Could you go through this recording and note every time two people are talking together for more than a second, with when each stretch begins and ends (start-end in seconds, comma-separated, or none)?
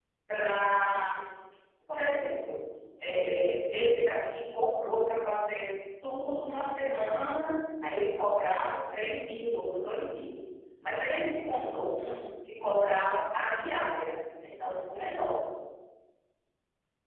none